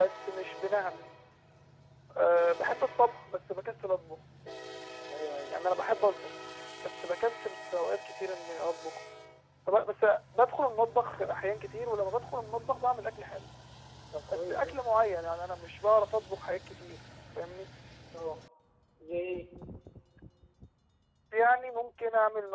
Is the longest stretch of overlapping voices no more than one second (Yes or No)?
Yes